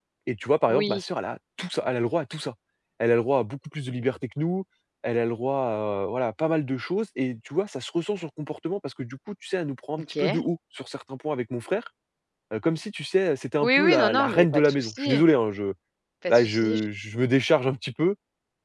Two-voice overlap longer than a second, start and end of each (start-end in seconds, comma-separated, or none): 13.6-15.2